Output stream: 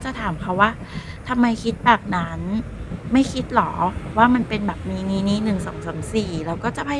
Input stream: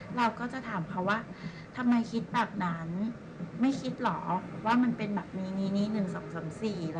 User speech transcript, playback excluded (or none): none